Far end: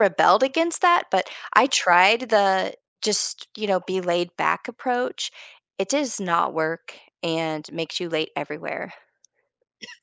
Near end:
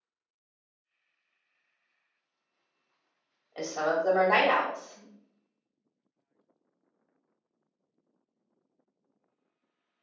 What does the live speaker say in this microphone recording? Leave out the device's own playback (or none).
and some of them are night owls.